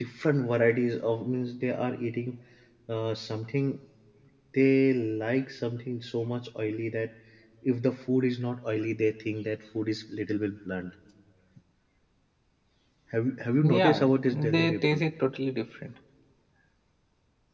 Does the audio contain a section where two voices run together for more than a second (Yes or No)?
Yes